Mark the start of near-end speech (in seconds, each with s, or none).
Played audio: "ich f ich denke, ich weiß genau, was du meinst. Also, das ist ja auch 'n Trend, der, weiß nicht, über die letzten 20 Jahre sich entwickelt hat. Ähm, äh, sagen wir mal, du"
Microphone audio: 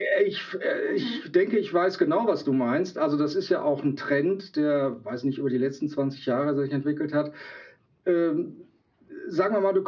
0.8 s